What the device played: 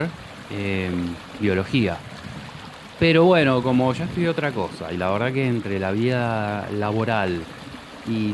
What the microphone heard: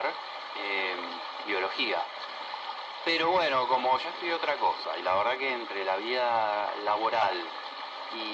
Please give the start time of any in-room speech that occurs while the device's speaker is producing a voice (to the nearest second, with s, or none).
none